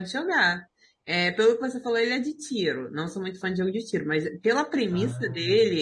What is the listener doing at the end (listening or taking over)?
listening